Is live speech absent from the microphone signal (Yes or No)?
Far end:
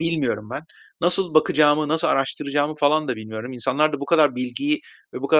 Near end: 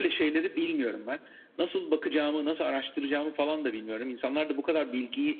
Yes